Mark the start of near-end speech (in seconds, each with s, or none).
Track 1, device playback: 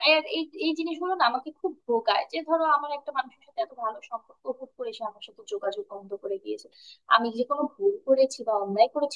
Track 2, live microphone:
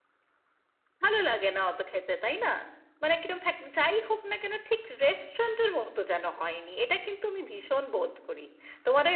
1.0 s